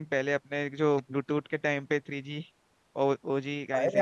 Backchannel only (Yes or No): No